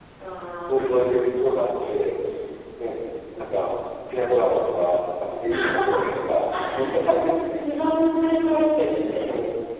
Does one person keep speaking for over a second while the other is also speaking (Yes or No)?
Yes